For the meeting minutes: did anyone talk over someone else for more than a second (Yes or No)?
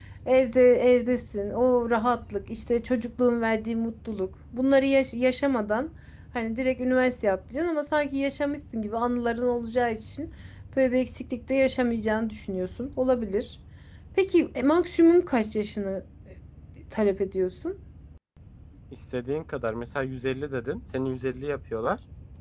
No